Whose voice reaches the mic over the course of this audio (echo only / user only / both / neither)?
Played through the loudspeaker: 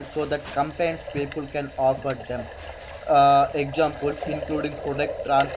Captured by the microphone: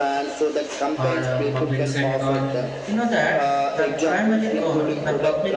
both